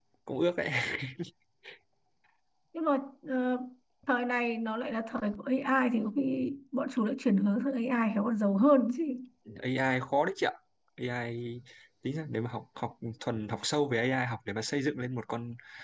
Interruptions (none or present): none